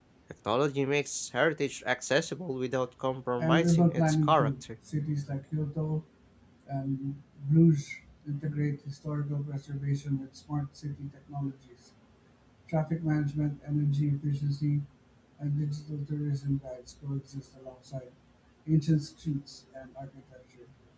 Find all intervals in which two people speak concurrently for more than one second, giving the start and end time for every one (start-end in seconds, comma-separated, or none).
3.4-4.6